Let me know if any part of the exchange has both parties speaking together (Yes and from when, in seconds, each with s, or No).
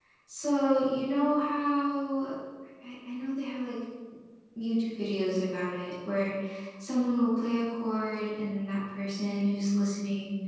No